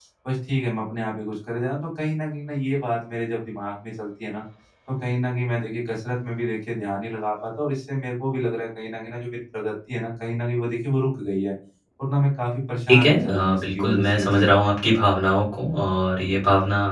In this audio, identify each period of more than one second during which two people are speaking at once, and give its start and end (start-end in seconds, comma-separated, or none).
12.9-14.5